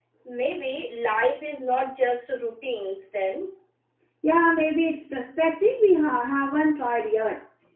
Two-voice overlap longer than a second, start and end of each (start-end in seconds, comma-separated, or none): none